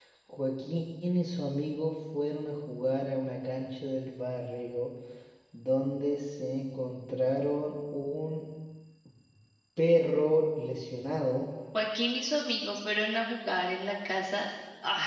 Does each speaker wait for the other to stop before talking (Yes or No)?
Yes